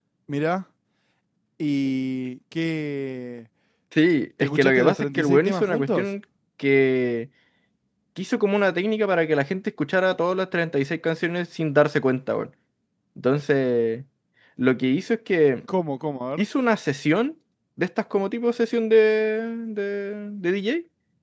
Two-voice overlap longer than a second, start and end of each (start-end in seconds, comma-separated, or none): 4.4-6.1